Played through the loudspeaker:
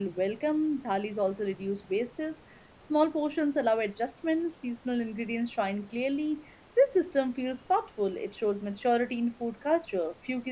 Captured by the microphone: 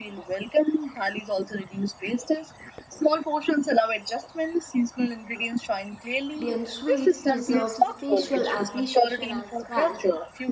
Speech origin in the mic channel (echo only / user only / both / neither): both